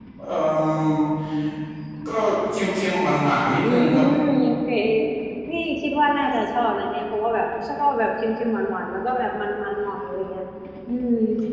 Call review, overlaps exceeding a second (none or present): none